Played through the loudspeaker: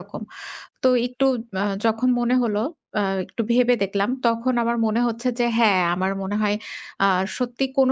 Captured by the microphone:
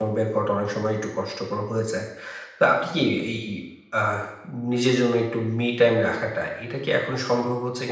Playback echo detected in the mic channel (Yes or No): No